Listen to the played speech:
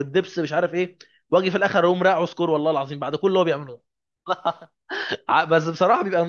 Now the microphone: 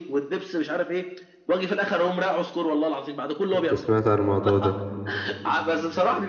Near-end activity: present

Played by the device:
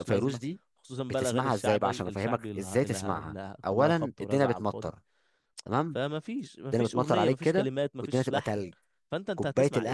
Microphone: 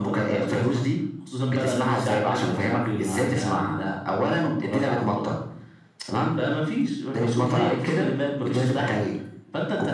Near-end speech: none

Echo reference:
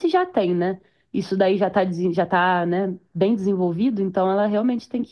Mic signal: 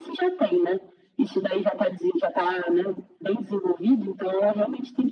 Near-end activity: none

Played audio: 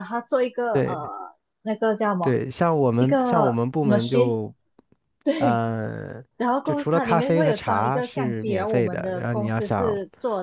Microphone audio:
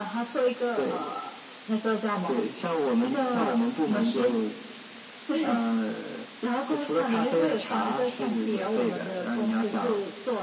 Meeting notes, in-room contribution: none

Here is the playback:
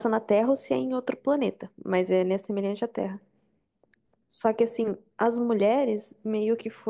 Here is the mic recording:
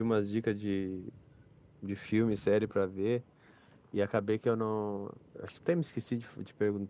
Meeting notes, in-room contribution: present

